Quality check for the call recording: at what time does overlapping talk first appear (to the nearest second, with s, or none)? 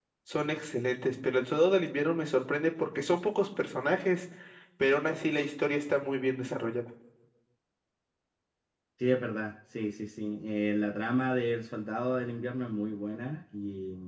none